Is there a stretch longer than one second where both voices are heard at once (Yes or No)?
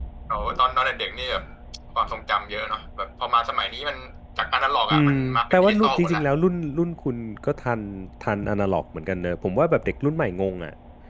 Yes